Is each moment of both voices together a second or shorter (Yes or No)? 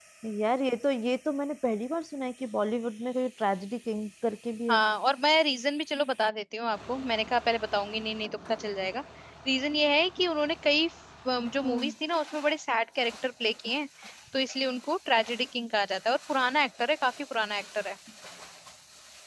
Yes